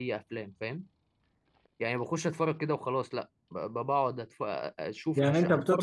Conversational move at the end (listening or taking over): taking over